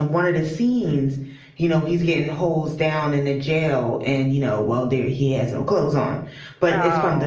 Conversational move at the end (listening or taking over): listening